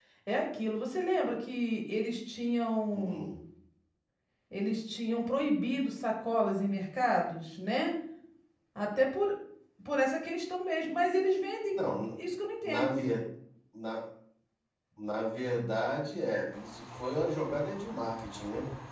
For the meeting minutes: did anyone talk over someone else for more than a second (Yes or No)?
No